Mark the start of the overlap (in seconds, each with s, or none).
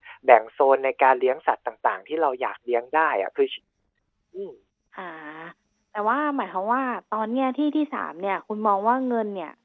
none